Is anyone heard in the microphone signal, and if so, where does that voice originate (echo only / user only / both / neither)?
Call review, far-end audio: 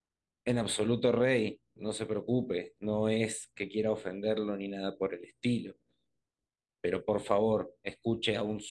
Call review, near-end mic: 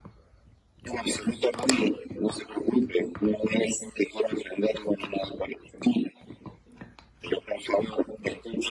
echo only